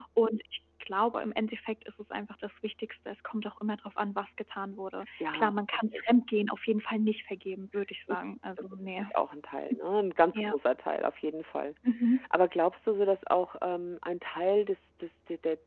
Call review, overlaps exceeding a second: none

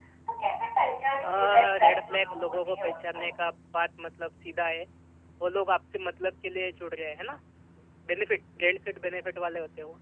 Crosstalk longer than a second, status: present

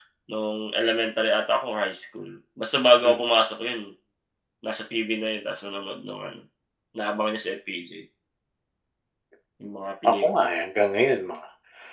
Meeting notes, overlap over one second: none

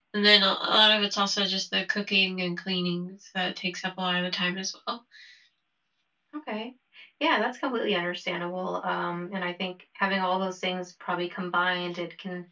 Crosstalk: none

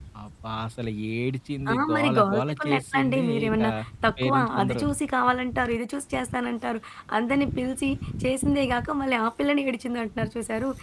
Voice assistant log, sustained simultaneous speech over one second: present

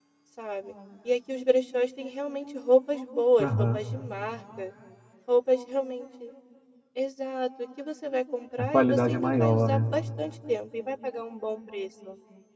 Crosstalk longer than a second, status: present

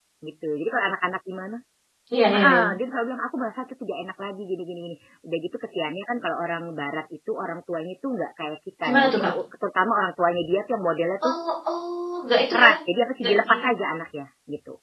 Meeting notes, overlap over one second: none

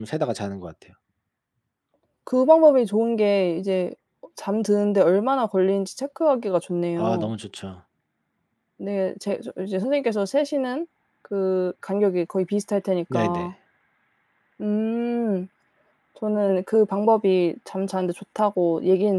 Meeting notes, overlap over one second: none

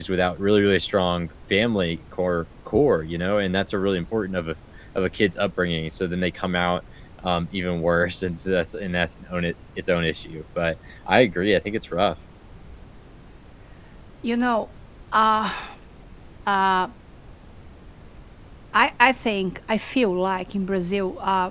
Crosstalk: none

